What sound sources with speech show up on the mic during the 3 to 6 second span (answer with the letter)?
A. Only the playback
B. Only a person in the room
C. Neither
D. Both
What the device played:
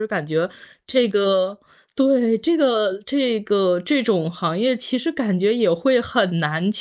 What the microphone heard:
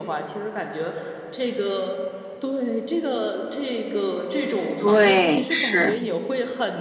D